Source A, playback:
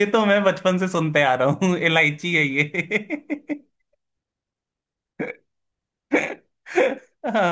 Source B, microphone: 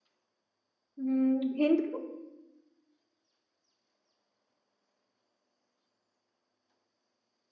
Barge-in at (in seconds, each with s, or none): 1.0 s